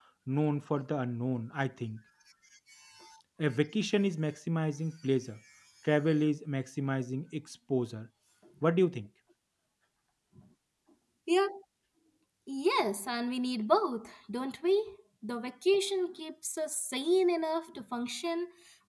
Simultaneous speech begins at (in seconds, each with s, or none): none